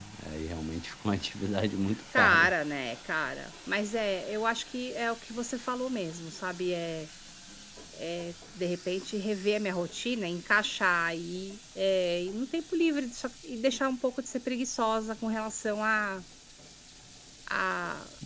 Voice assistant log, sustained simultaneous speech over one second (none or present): none